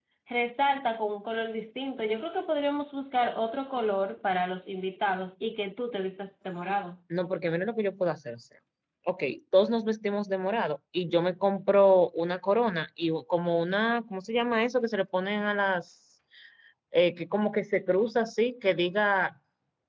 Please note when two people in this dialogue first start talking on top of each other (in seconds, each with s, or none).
none